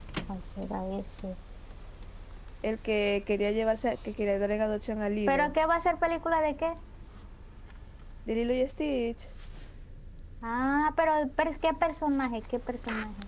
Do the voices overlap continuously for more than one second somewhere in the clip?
No

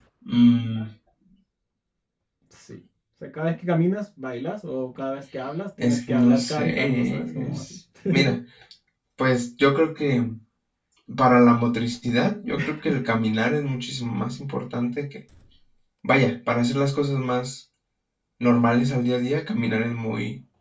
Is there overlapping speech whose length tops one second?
Yes, from 5.8 s

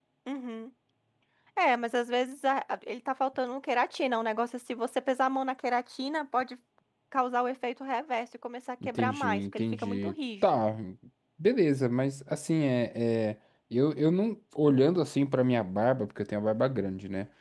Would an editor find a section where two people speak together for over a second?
Yes, from 8.8 s

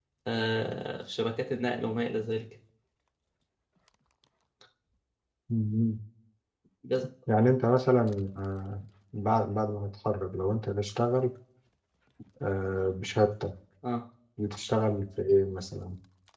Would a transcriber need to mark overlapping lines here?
No

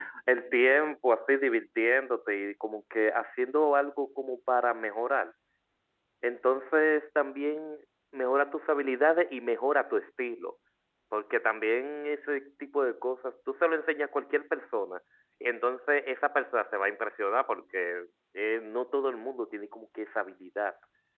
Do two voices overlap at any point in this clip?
No

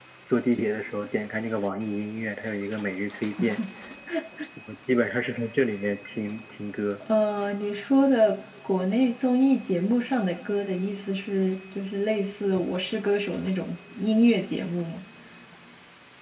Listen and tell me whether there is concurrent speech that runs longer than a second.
No

